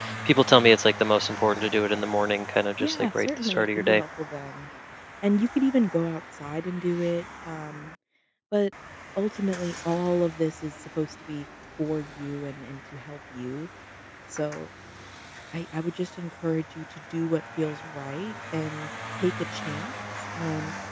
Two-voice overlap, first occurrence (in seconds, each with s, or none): 2.8 s